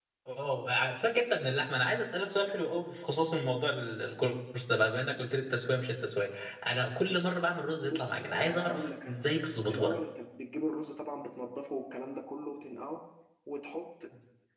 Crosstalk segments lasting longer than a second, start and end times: 7.9-9.2

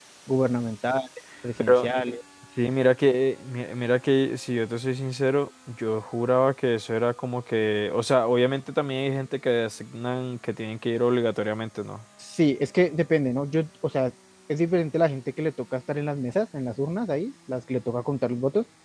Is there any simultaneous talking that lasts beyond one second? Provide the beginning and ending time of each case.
none

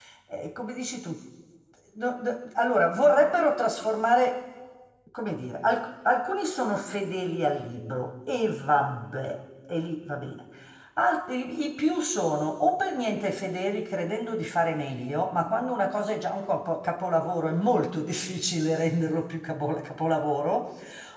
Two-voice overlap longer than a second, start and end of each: none

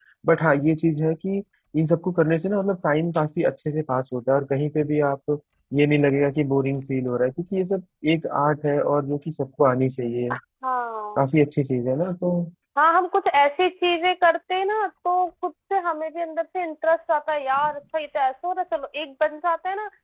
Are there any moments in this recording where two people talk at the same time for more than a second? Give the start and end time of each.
none

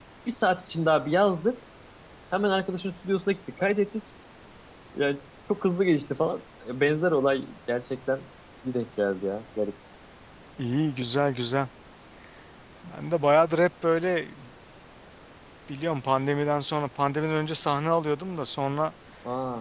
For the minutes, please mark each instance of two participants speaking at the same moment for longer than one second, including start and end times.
none

